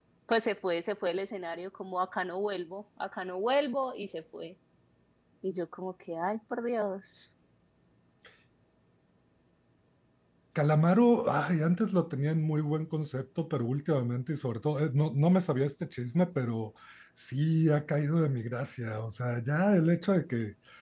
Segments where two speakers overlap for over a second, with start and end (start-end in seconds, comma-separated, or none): none